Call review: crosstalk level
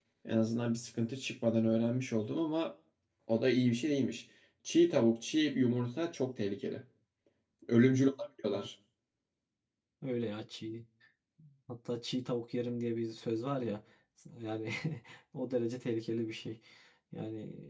none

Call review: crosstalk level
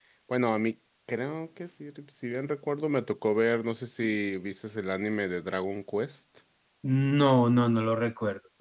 none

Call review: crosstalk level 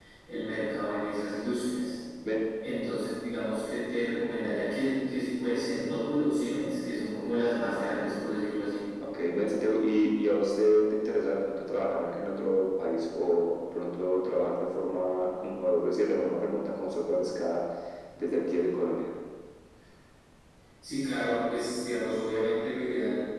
none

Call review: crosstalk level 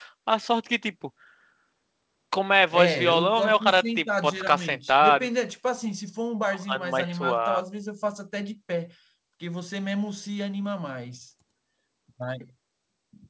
present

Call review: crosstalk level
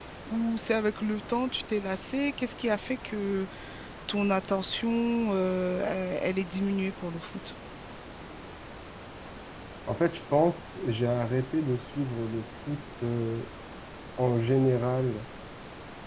none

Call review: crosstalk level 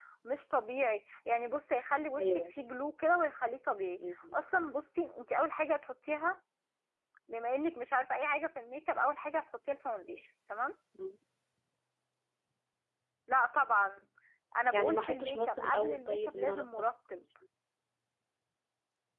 present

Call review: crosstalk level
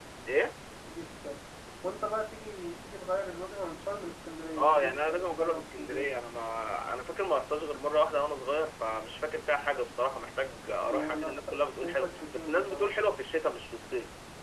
present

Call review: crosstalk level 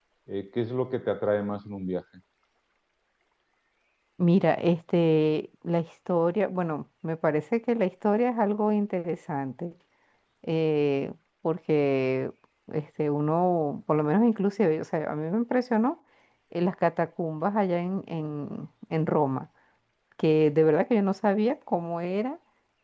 none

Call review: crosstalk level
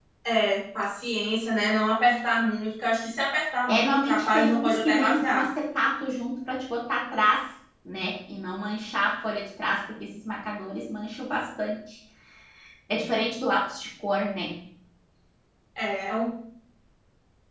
present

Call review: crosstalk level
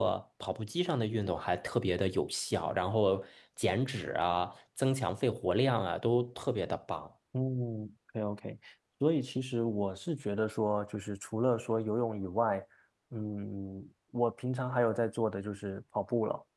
none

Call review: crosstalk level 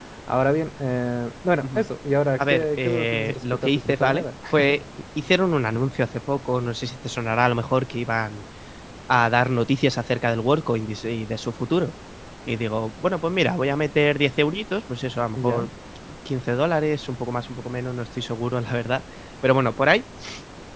present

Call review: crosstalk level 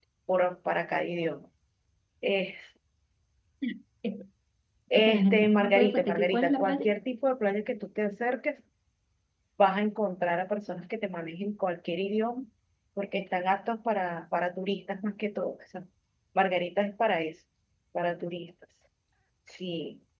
present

